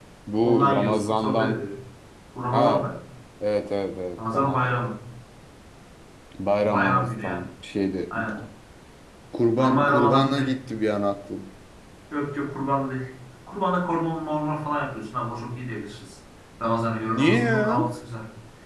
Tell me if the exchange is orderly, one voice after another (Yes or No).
No